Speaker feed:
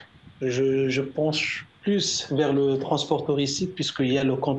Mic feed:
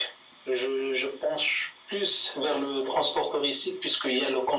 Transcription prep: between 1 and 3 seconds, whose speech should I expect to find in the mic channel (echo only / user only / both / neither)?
echo only